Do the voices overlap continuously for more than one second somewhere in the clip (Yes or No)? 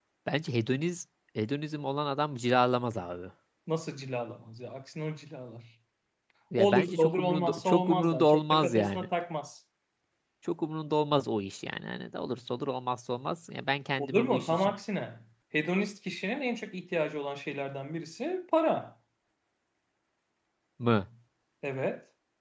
Yes